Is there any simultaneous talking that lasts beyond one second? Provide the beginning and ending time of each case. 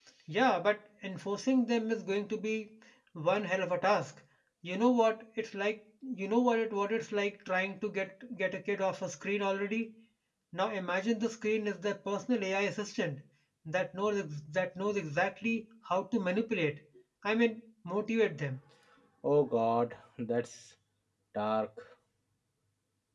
none

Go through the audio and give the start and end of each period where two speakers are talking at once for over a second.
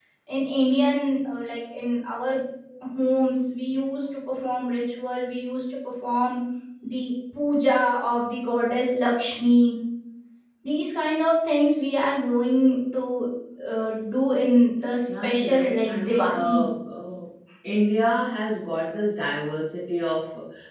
15.2-16.6

